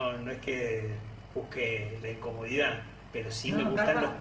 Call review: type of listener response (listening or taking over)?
listening